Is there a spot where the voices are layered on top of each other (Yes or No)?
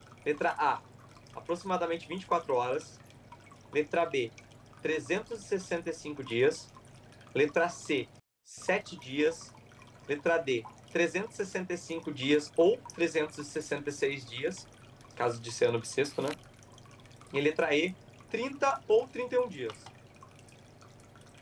No